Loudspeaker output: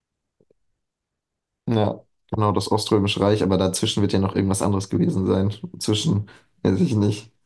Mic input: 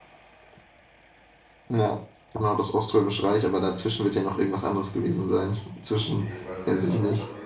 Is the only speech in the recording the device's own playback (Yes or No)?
No